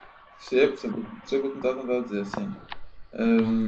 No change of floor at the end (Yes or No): No